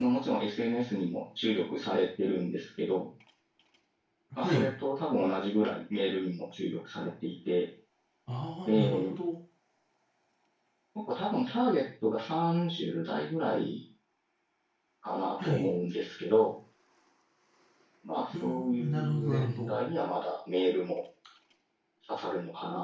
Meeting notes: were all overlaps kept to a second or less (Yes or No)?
No